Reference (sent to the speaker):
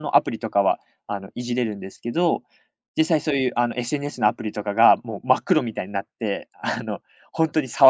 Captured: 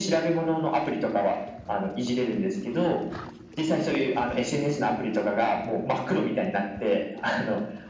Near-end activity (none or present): none